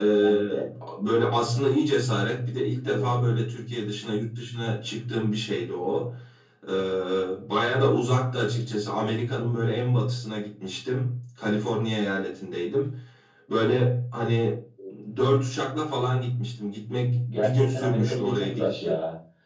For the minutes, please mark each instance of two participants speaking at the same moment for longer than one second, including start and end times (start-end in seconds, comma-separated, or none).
17.3-18.9